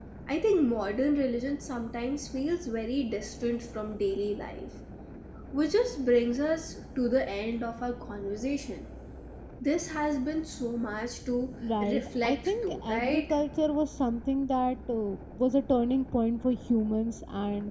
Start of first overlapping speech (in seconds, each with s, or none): 11.6 s